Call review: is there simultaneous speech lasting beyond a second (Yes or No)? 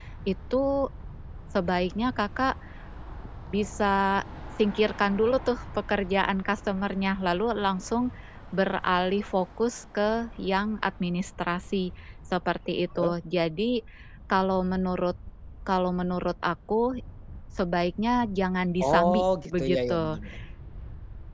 Yes